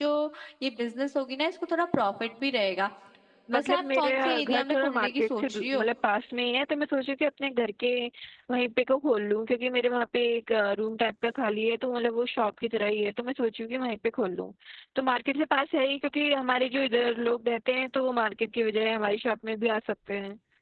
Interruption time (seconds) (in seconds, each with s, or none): 3.5 s